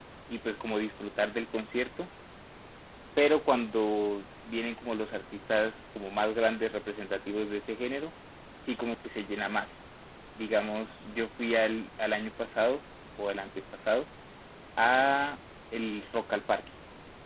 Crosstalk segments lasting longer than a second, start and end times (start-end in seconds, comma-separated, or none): none